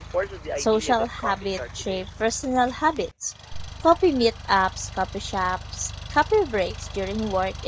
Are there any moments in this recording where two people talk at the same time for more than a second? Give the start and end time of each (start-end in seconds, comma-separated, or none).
0.6-2.0